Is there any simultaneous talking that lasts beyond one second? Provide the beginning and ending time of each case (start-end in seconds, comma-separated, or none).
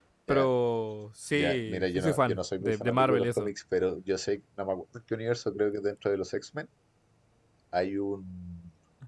1.3-3.5